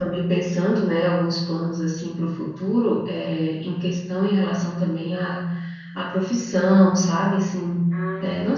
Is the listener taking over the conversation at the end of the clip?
No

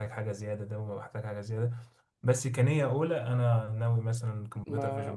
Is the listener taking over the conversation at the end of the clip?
Yes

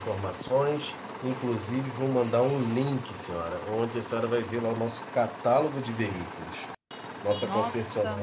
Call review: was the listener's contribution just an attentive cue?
Yes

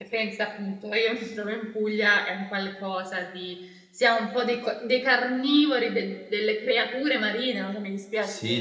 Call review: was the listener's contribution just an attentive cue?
No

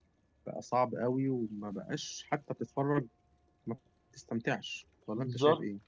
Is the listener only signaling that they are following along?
No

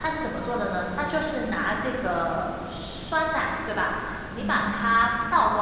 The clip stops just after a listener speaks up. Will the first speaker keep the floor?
Yes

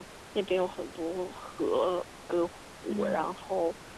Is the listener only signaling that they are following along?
Yes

